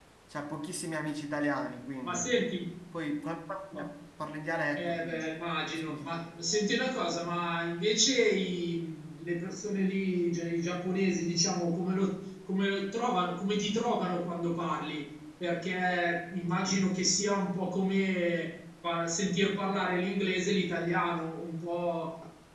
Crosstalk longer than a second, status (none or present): none